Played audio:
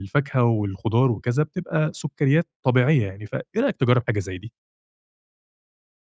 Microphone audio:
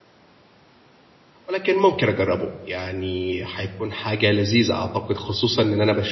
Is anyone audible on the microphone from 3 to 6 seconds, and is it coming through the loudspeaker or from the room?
user only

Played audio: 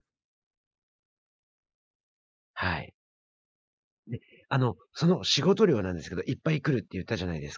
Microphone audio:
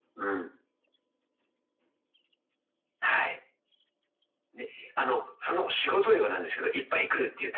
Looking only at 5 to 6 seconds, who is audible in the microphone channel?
echo only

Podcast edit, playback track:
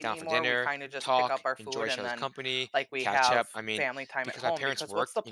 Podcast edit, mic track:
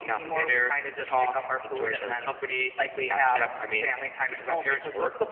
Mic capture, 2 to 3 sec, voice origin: echo only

